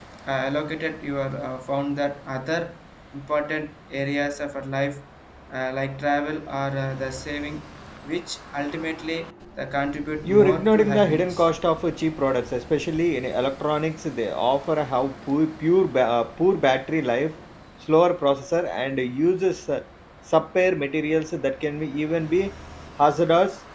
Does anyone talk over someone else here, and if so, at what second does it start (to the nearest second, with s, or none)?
10 s